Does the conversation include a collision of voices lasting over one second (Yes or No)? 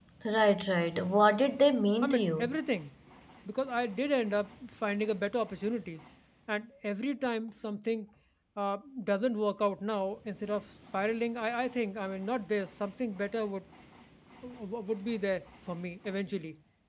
No